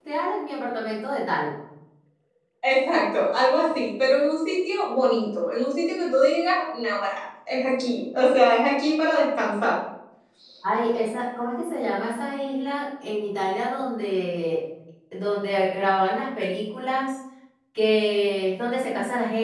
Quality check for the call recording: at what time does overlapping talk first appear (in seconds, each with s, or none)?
none